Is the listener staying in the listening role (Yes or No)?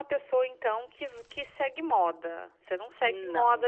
Yes